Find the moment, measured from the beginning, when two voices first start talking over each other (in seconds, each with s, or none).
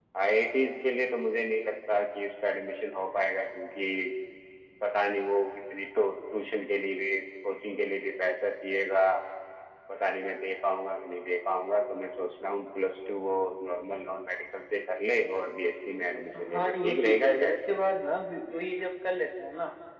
16.1 s